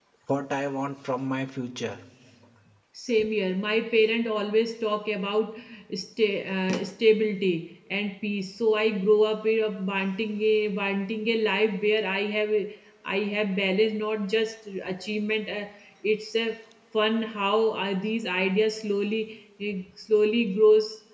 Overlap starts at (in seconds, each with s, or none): none